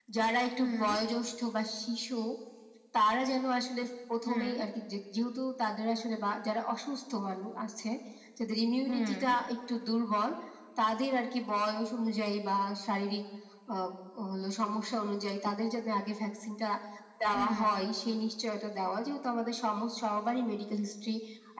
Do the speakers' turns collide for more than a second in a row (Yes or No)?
No